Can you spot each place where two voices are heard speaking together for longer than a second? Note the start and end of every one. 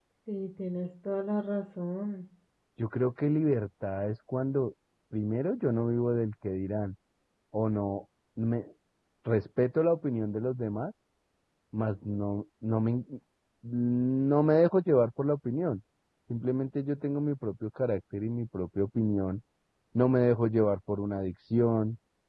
none

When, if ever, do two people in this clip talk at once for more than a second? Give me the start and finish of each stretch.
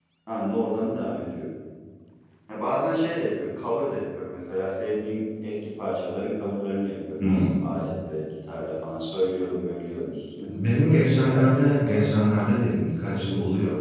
10.9-12.2

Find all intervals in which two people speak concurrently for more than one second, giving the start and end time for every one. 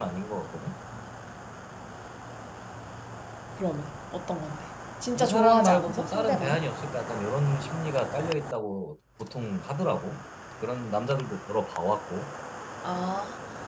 5.2-6.6

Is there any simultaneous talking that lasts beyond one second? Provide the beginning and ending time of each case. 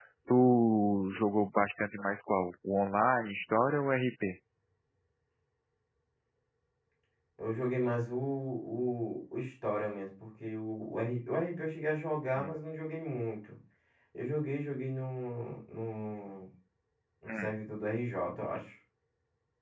none

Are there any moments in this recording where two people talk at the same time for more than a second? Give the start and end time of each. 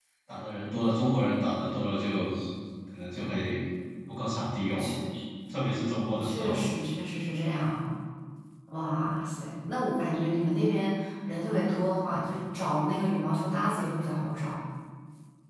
none

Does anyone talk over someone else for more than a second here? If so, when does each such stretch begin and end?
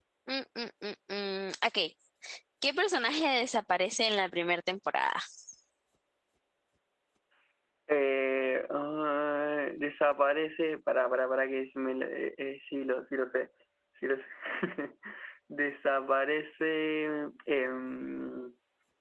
none

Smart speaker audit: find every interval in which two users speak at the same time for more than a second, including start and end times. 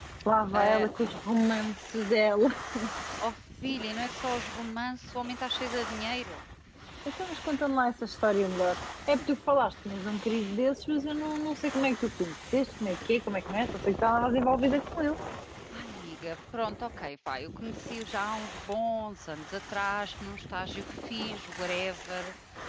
none

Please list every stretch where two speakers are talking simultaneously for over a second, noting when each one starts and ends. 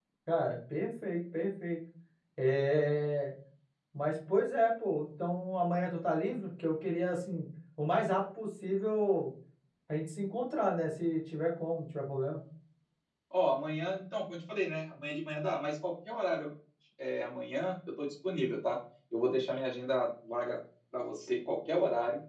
none

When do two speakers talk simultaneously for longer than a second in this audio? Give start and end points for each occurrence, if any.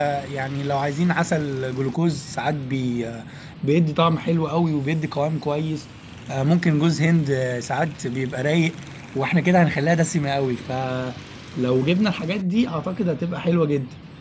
none

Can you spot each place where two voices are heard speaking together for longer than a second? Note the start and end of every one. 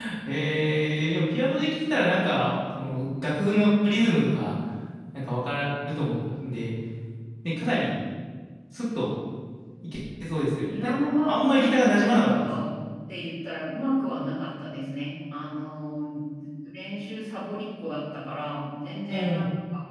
10.7-12.5

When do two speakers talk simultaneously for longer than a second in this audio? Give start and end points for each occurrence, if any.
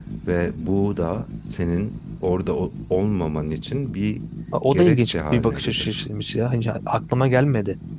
4.7-6.0

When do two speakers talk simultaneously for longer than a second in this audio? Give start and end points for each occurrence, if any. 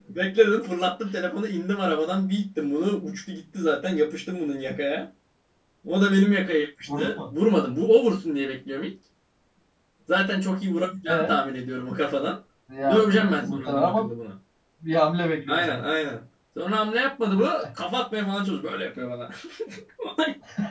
12.9-14.1

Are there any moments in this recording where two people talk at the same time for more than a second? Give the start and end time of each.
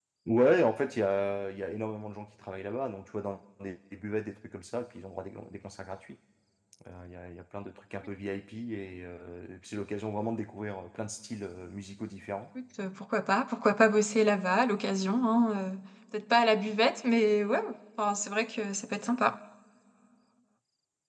none

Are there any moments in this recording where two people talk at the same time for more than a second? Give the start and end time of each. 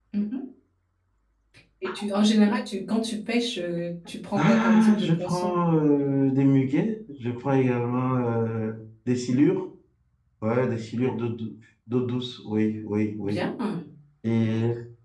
4.3-5.6

